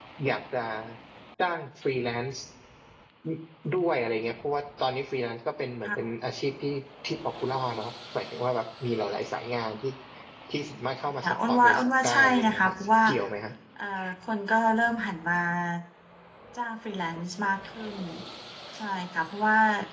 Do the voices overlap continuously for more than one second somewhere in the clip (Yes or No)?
Yes